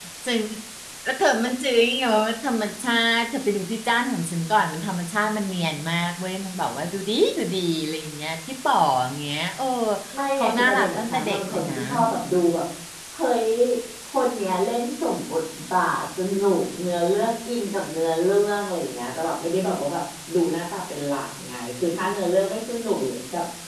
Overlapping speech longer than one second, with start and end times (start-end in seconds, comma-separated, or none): 10.4-11.8